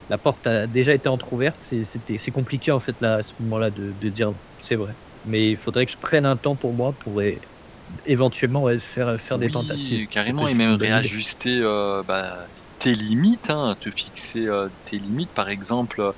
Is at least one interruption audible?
Yes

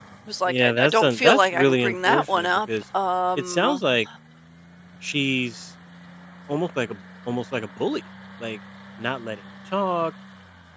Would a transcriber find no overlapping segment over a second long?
No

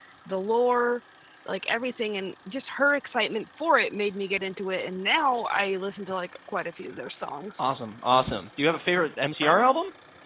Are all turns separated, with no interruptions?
Yes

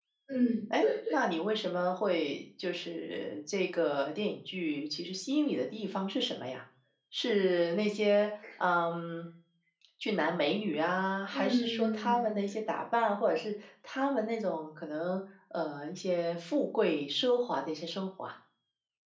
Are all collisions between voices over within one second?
No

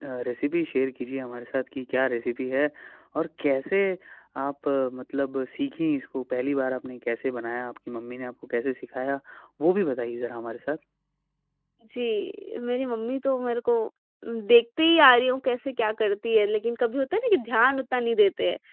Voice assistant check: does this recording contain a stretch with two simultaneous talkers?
No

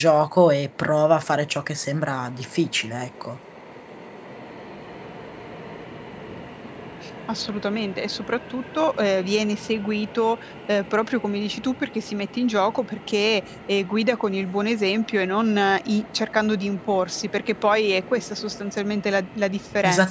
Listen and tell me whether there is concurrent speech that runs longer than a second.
No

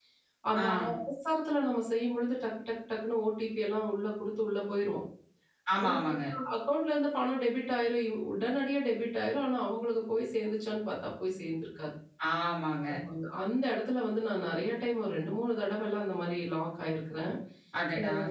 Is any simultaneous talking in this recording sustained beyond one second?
No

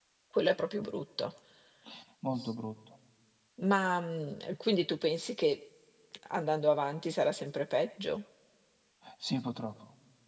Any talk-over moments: No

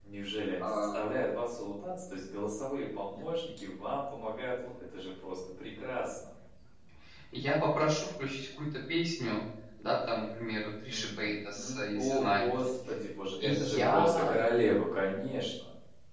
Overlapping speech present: Yes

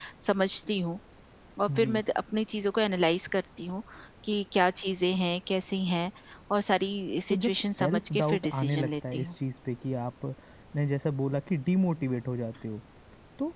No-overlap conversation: No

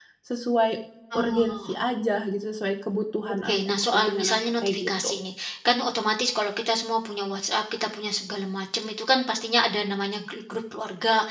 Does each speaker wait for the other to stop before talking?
No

